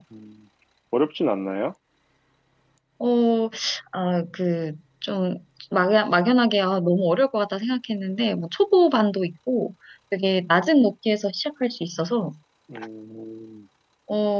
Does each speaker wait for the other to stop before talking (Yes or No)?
Yes